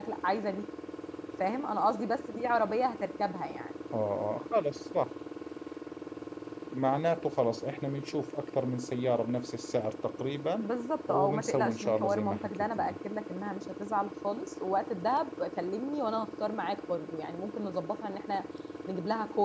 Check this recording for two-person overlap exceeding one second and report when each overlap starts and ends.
11.1-13.0

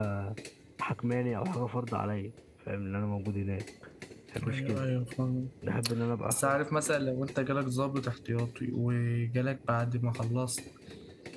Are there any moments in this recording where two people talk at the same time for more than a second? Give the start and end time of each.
none

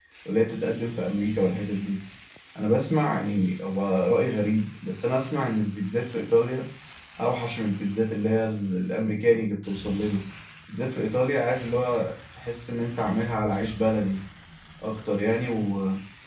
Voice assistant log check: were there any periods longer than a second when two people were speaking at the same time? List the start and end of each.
none

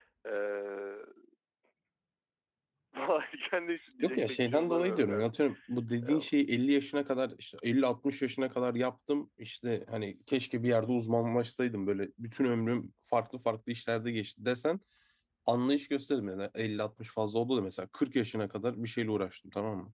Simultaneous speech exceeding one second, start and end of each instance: 4.0-5.3

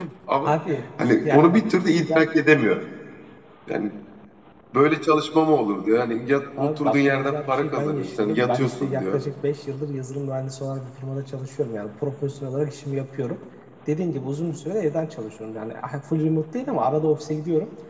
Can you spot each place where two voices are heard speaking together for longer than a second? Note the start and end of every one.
6.6-9.2

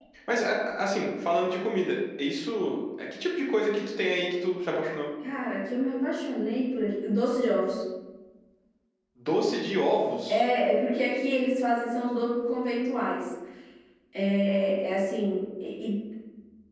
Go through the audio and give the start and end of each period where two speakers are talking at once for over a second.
none

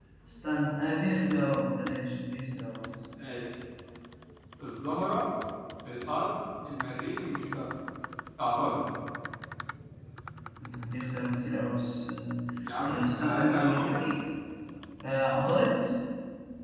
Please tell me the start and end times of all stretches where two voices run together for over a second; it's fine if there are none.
12.8-14.1

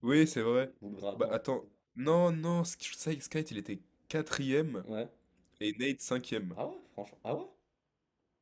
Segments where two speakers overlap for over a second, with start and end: none

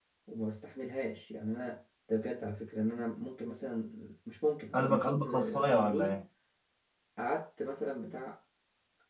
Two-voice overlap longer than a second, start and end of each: 4.8-6.2

